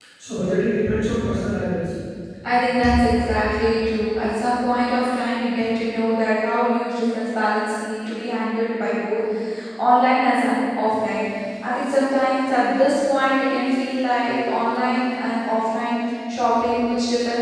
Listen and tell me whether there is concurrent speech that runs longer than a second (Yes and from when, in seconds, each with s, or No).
No